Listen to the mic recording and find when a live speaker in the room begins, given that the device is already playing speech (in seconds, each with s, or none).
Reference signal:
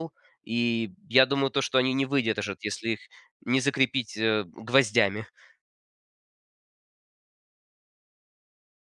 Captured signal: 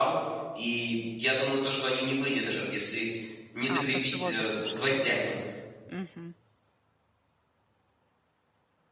3.6 s